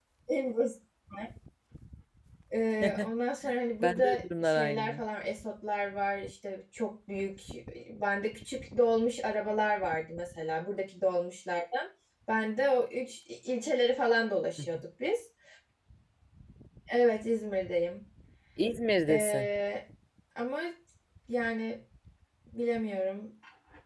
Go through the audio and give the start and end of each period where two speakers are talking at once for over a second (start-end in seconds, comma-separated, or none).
3.8-5.0